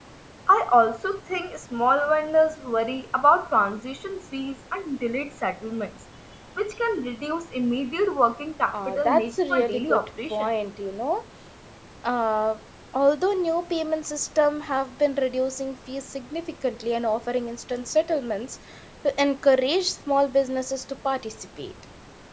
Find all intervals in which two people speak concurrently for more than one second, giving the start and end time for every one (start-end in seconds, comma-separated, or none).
8.7-10.5